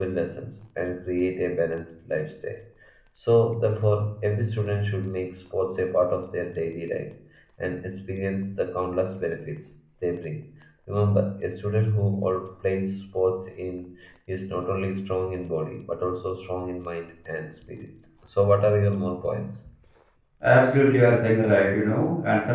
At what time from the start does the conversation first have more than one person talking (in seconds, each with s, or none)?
none